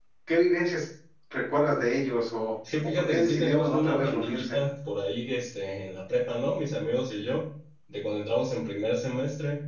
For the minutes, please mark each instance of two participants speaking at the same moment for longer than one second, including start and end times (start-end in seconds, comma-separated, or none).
2.8-4.6